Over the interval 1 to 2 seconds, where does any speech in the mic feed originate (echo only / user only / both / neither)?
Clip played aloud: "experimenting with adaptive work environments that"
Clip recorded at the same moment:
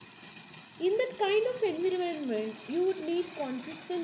user only